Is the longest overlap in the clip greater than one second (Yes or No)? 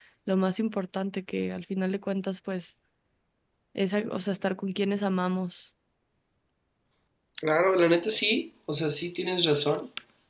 No